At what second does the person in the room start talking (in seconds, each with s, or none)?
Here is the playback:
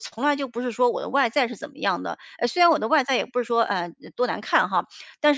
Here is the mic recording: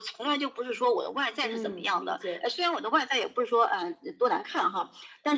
1.4 s